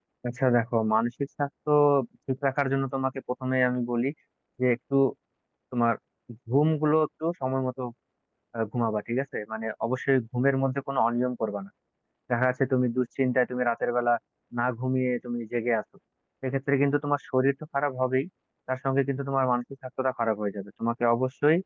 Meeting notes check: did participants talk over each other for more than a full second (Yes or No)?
No